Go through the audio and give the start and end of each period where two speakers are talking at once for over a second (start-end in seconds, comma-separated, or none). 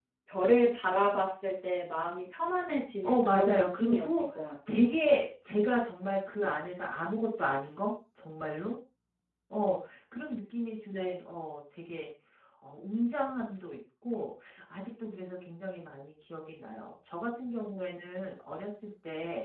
3.0-4.2